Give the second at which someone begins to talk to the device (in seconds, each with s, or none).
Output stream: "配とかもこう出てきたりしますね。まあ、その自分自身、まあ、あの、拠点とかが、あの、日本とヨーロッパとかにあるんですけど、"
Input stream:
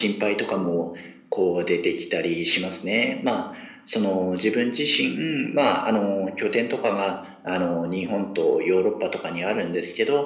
none